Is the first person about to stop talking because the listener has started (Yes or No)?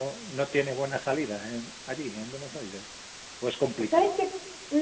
Yes